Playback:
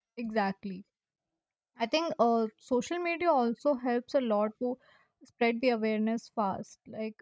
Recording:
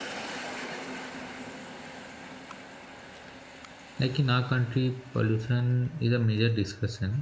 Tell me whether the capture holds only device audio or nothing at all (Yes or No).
No